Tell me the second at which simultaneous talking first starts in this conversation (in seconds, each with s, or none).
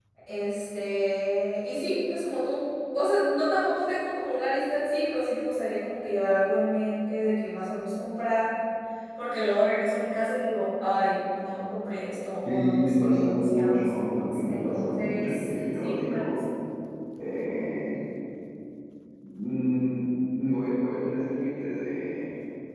12.4 s